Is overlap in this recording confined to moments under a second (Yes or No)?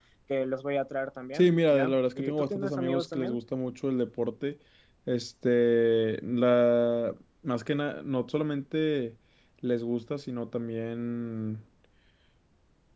No